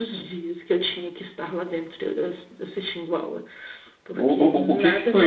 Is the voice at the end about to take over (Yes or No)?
Yes